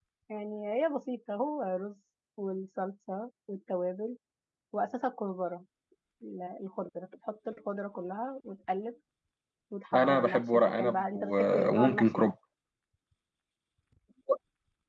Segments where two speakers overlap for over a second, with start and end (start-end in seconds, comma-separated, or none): 9.9-12.3